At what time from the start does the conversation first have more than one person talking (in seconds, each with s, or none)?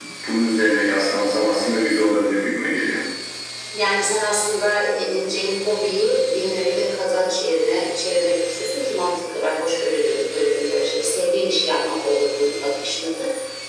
none